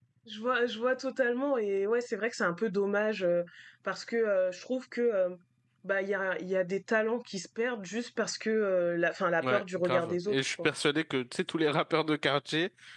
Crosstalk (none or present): present